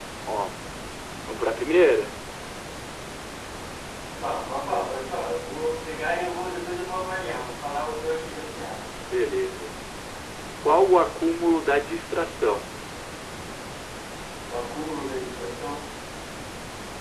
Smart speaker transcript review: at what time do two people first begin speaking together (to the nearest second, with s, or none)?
none